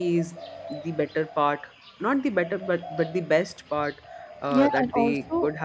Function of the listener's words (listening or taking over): taking over